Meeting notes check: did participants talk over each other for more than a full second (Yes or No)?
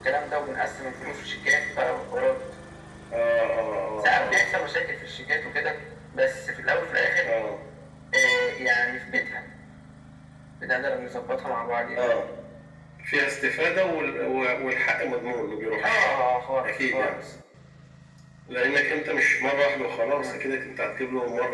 No